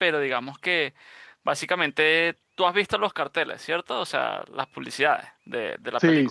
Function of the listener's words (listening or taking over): taking over